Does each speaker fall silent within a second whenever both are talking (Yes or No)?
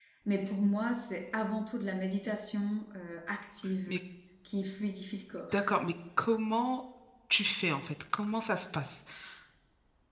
Yes